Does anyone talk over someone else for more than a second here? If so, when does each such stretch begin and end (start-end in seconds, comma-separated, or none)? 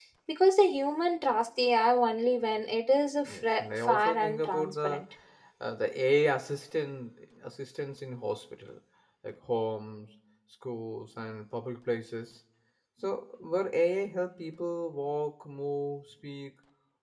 3.3-5.0